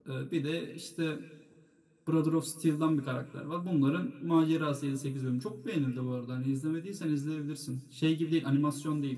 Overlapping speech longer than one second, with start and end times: none

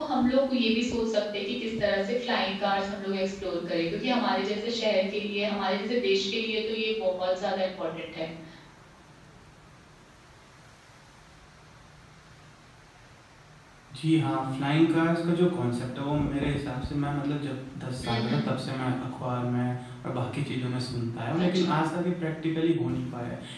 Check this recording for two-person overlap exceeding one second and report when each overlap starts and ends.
none

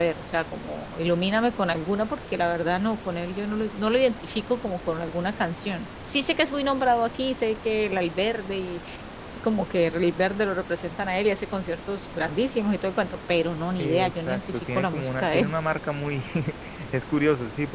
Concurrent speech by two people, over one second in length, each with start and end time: 13.8-15.5

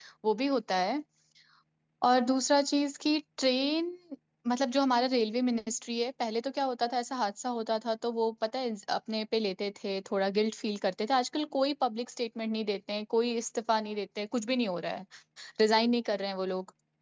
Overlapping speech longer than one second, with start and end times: none

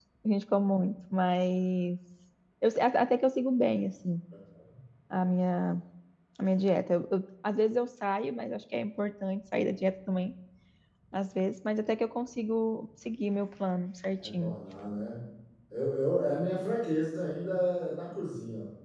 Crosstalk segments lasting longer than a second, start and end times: none

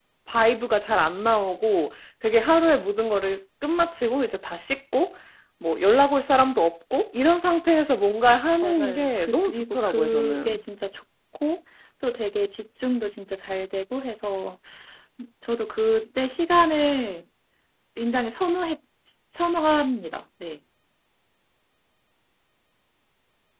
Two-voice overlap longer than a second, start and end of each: 8.6-10.6

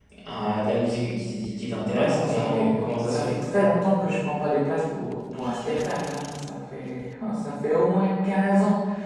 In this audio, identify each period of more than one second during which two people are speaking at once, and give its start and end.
2.0-3.4

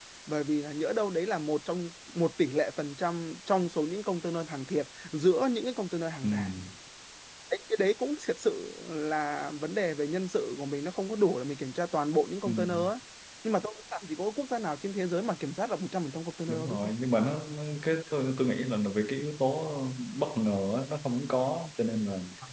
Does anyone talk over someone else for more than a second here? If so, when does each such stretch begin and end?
none

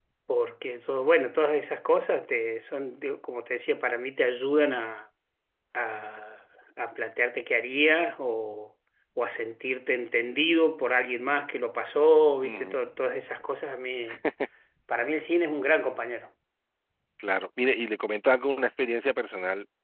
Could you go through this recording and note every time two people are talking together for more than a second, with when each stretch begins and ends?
none

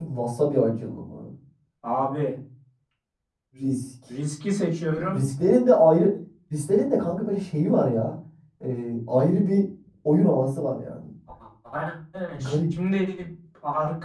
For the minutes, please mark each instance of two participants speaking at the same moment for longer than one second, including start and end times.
none

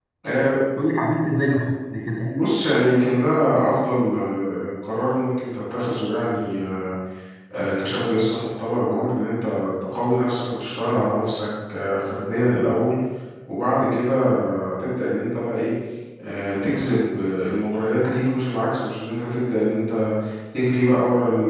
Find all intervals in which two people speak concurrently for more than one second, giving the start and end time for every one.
none

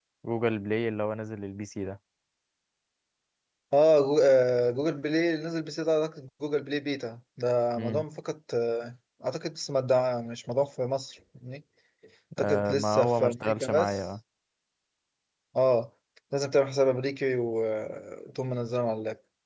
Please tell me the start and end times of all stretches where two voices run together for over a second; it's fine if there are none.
12.4-14.0

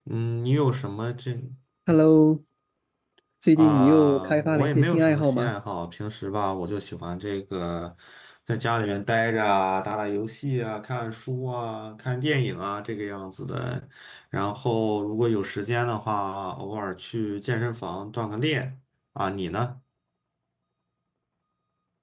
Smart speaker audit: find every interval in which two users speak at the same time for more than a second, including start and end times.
3.6-5.5

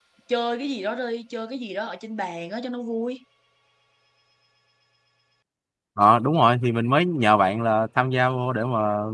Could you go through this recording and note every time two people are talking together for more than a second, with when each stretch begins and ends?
none

